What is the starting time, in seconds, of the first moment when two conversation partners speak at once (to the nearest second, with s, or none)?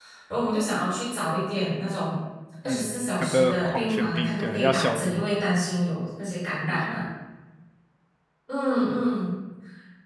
3 s